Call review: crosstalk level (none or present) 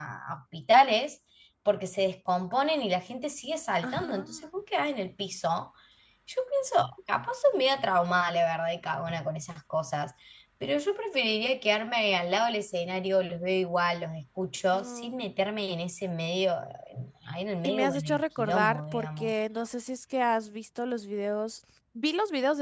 present